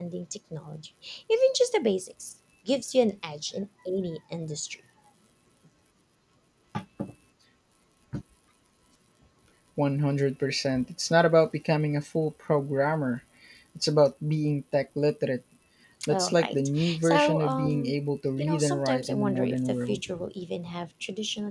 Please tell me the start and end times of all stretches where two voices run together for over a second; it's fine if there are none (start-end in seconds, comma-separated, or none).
16.1-18.0, 18.4-20.0